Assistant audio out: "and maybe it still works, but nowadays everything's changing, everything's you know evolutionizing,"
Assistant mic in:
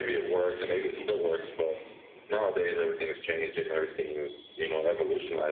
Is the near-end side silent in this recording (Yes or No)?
Yes